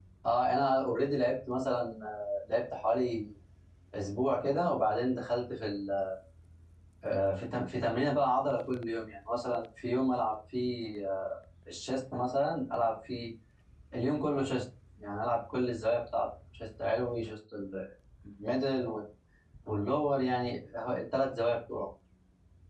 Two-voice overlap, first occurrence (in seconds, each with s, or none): none